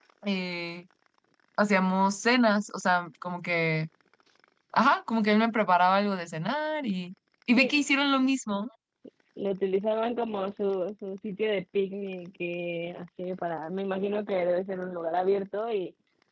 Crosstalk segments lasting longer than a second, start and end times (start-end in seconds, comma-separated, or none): none